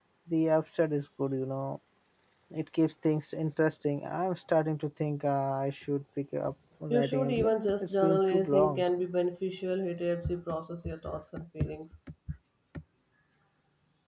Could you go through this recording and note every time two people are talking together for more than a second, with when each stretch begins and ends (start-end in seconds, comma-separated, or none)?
6.9-8.8